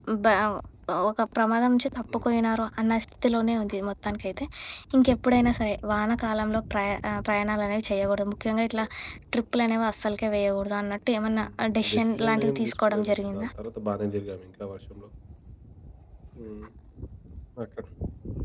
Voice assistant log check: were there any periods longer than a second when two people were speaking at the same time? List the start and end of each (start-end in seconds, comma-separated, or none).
11.9-13.5